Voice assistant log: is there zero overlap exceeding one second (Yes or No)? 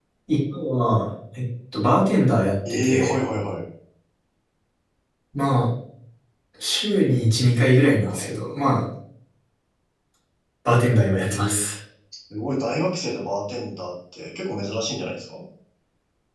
Yes